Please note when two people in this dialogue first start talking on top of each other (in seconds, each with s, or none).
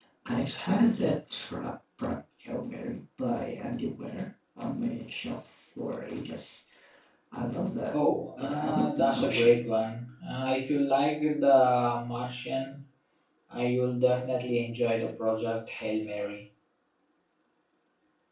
8.4 s